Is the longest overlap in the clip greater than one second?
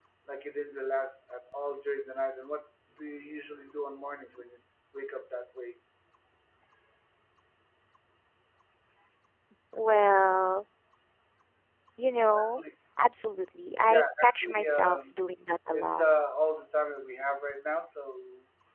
Yes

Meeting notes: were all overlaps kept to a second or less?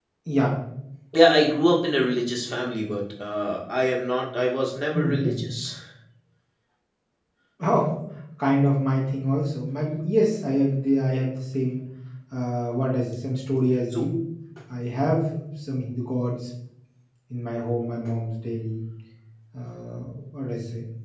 Yes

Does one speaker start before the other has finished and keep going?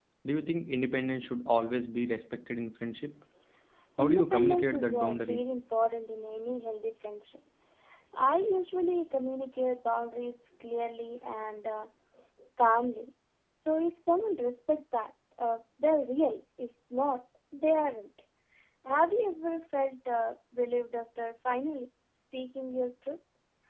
Yes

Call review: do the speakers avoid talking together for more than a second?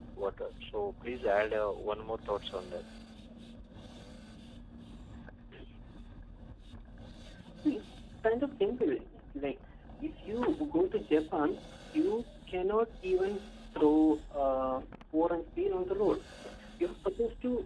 Yes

